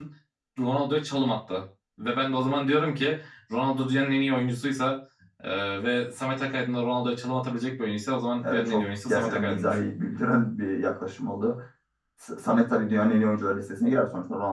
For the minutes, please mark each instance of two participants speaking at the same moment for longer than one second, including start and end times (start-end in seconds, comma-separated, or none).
8.4-9.8